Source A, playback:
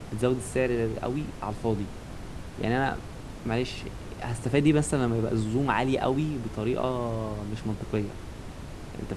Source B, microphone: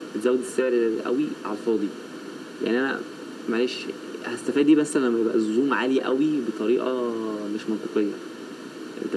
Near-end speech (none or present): none